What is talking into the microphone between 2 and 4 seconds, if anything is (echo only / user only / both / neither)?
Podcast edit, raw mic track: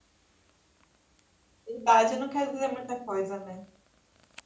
user only